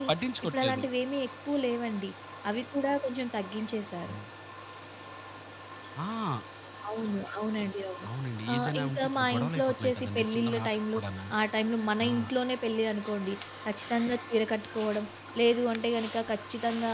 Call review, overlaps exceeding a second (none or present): present